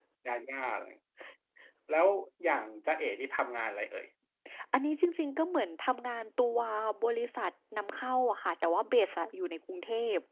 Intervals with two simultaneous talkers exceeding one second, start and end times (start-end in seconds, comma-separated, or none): none